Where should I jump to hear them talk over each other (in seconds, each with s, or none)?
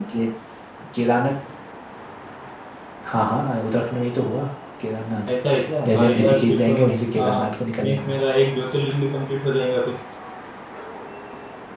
5.9 s